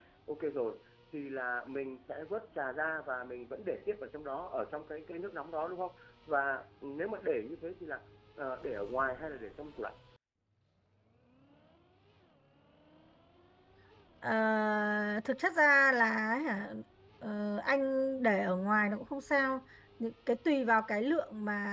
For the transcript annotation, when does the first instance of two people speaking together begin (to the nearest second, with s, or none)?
none